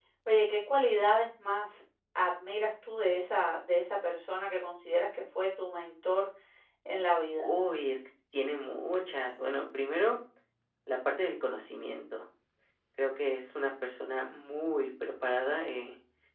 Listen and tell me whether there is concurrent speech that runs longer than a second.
No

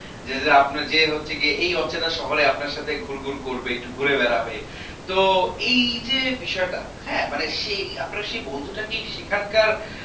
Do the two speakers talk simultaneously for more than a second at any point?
No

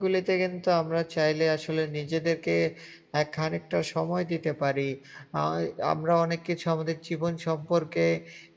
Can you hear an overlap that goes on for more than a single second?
No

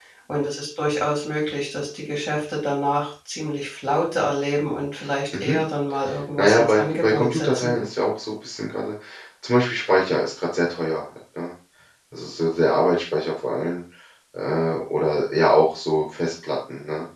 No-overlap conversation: No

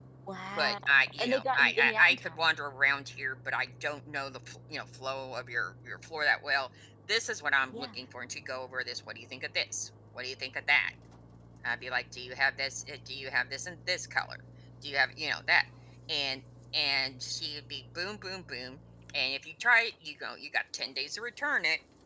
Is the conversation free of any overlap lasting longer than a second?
No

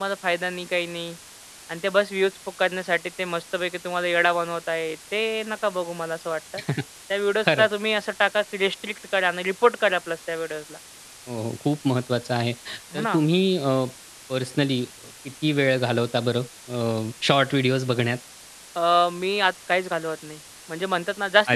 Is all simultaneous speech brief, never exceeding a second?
Yes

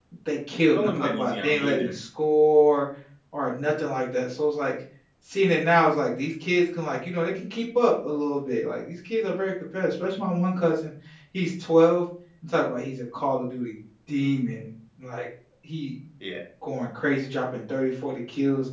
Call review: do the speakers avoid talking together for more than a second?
No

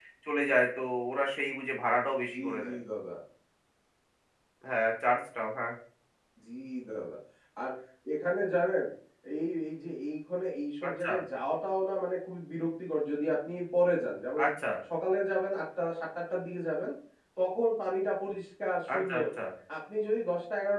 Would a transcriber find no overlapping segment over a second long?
Yes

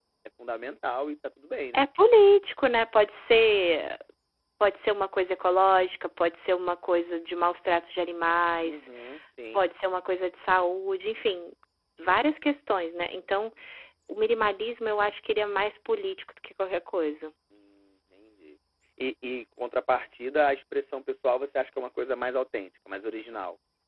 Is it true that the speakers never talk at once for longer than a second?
Yes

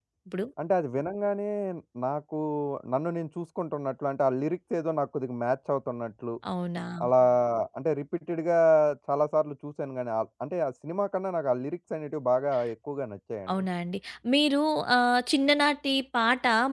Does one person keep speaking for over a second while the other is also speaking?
No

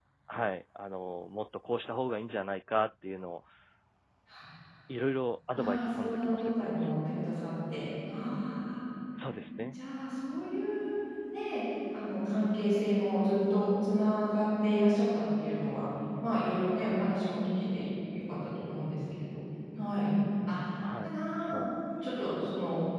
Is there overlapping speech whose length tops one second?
Yes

